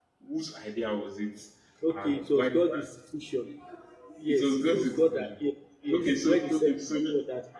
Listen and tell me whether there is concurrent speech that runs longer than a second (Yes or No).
Yes